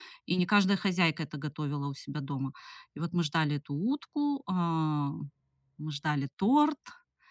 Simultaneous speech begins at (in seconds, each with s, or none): none